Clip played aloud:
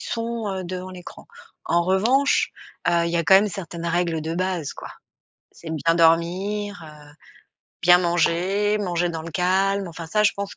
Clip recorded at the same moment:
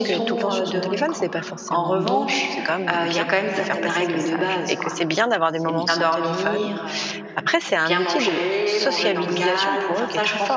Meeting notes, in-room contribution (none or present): present